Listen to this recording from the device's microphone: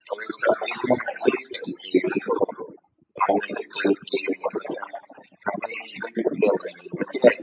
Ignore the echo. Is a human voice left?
No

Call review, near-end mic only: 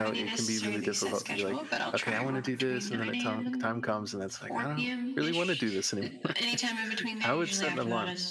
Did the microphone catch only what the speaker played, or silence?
No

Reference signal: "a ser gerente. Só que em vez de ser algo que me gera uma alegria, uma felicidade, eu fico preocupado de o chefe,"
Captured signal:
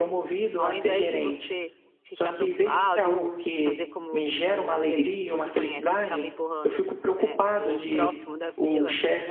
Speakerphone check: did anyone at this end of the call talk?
Yes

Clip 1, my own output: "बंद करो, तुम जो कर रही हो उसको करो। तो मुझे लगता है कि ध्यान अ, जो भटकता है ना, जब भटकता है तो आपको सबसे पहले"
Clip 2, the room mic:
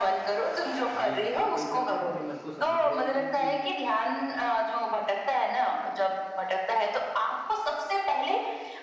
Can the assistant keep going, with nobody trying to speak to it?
No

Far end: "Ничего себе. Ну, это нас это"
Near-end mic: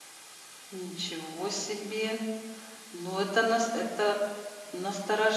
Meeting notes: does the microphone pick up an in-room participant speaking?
No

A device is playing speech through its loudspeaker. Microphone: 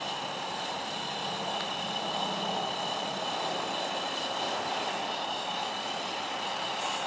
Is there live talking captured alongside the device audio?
No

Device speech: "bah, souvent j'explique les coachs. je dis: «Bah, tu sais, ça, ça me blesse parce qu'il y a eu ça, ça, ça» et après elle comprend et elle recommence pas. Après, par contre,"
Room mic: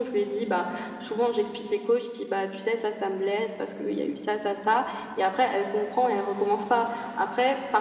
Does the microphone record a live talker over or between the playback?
No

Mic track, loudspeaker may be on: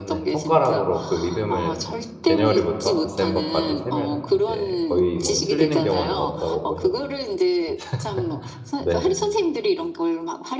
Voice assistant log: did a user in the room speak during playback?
Yes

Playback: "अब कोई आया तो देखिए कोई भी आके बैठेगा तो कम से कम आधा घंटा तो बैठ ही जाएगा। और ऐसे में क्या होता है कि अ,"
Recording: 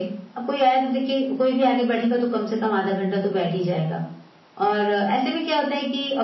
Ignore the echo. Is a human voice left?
No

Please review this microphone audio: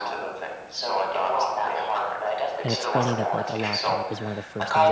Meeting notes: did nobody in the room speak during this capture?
No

